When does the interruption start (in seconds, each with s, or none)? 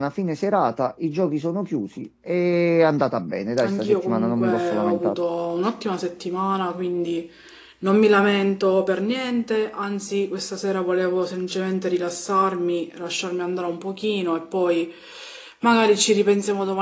3.6 s